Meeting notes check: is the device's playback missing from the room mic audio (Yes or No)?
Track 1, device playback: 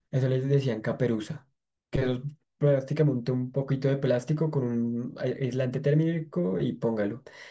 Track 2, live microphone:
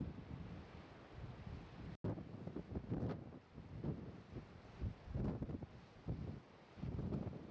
Yes